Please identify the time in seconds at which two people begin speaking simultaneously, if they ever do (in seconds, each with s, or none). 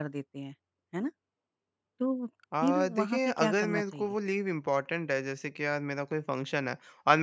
2.6 s